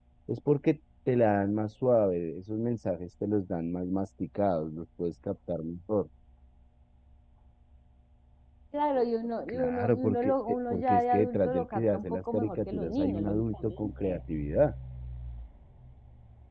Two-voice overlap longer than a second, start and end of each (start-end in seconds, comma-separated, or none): 9.5-14.2